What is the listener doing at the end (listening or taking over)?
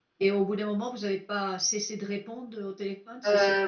taking over